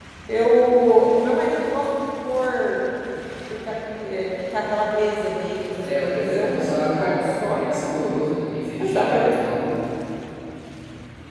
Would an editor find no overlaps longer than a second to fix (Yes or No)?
No